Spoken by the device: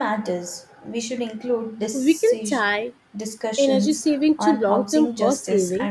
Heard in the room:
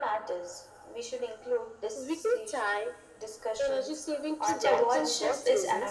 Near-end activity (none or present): present